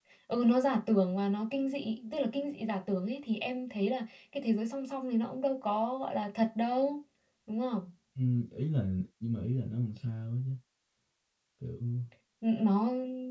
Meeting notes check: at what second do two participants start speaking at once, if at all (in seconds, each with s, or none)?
none